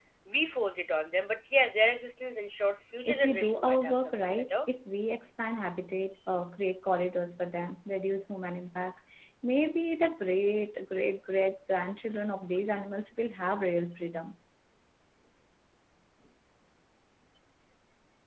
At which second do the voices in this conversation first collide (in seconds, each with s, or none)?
3.0 s